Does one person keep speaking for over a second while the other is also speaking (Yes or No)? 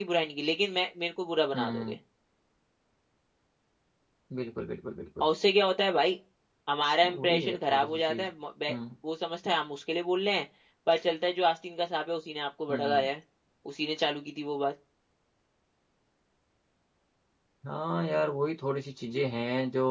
Yes